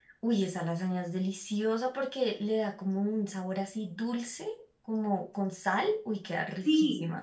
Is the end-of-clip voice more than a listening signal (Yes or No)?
Yes